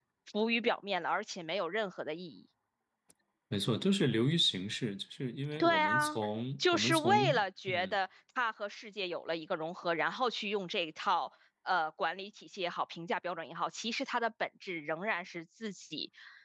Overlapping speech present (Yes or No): Yes